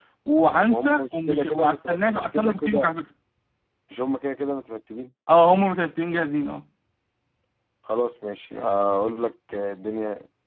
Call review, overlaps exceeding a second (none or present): present